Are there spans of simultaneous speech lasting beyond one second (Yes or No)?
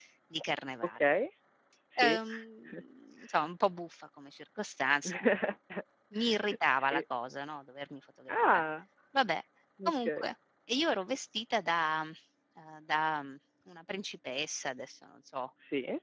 No